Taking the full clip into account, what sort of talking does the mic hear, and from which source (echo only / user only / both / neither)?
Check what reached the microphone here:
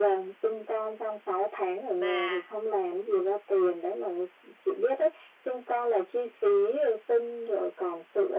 both